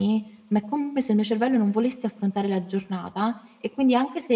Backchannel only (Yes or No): Yes